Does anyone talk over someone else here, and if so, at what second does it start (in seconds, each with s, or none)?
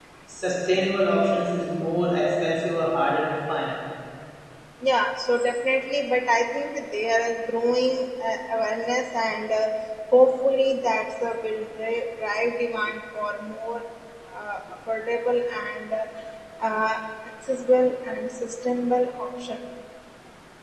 none